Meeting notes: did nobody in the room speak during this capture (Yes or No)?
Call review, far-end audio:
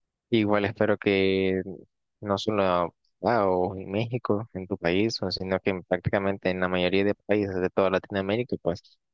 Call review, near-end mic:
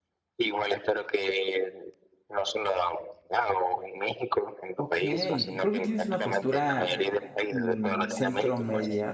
No